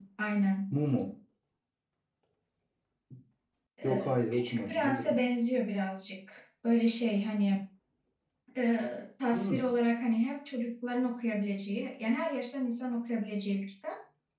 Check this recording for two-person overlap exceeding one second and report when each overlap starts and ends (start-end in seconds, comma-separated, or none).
3.8-5.2